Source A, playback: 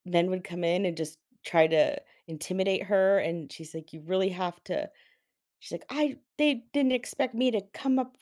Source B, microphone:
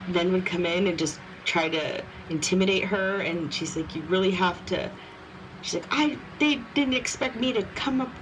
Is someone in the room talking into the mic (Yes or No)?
No